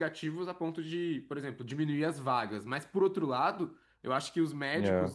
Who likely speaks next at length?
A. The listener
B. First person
B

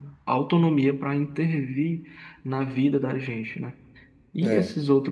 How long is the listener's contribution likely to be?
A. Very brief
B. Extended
A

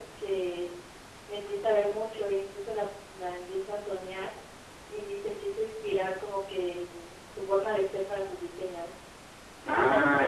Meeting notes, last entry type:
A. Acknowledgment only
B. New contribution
B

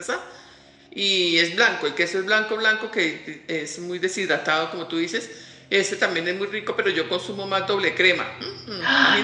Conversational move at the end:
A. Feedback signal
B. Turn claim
B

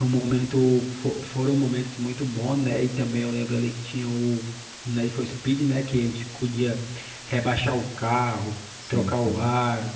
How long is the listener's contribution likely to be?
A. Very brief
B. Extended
A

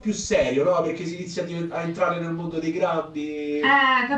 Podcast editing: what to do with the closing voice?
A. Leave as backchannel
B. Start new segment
B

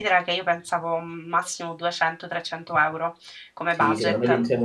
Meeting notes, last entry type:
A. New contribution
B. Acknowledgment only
A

